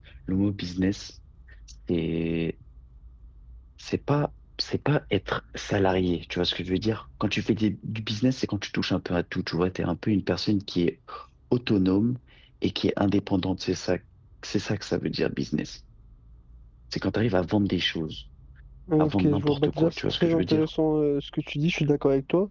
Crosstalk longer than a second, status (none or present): present